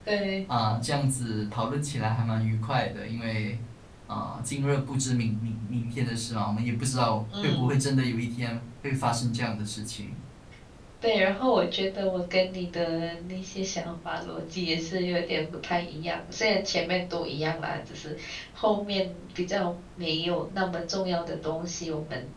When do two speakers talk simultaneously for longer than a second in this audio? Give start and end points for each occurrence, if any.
none

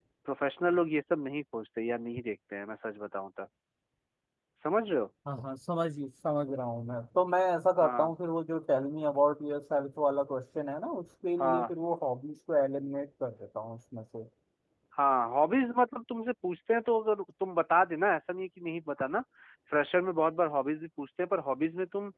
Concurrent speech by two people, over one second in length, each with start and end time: none

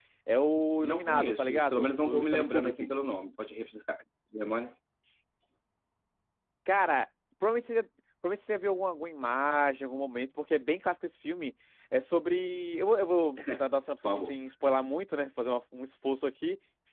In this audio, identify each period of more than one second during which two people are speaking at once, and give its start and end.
0.8-2.9

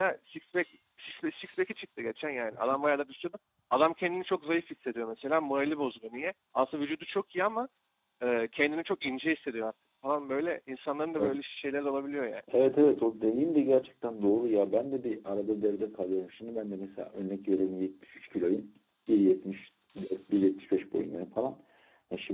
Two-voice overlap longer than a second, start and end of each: none

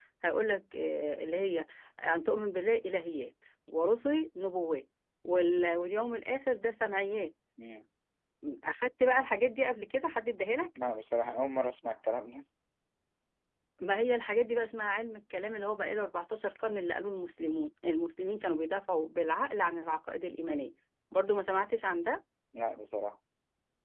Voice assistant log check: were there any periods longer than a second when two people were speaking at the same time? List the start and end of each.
none

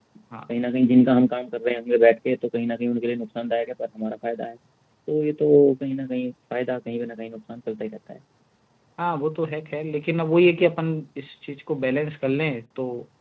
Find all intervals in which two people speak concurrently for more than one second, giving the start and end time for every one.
none

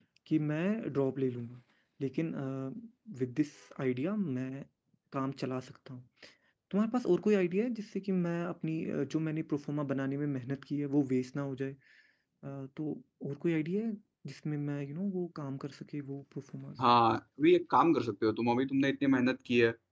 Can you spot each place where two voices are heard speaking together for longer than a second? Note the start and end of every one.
none

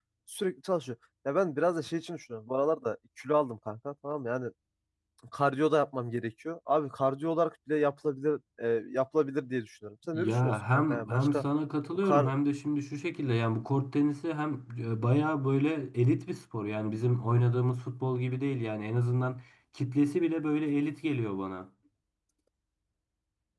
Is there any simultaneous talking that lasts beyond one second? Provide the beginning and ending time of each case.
10.1-11.4

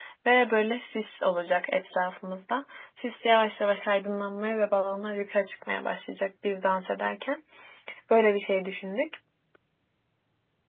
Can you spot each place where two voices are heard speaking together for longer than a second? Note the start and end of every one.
none

